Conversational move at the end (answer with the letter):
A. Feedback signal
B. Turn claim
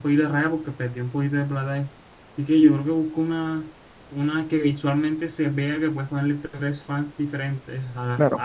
A